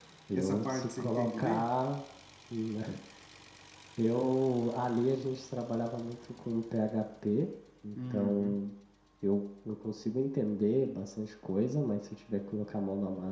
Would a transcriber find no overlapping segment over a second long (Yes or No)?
No